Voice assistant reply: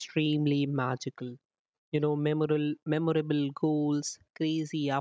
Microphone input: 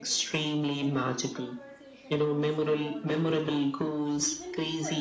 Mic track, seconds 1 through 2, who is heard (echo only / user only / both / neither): both